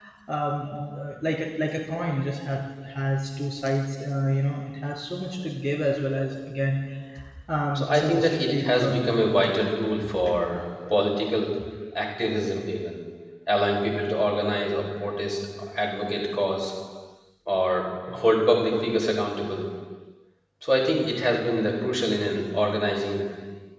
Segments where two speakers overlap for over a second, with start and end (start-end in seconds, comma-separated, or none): 7.8-9.2